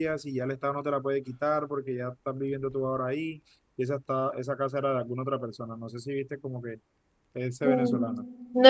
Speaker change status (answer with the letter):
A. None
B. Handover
B